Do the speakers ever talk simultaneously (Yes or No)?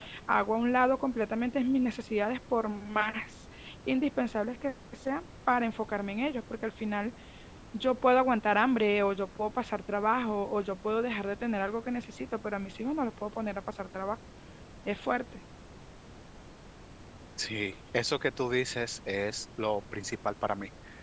No